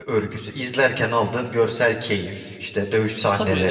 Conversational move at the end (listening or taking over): taking over